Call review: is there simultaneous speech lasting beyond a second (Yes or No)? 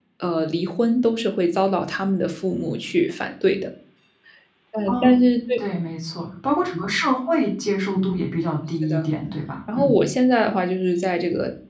No